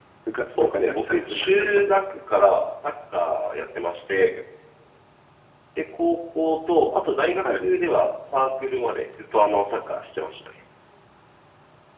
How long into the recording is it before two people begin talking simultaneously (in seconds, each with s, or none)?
0.6 s